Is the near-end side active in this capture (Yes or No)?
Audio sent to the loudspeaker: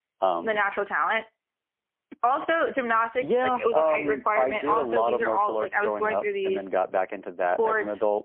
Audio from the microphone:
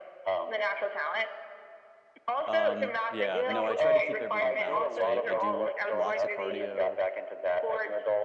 Yes